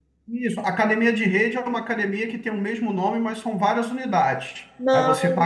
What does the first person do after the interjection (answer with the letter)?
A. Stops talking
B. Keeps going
B